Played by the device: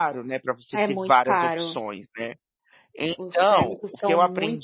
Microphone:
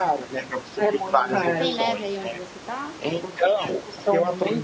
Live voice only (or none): Uhum. Tem neve aí onde você está?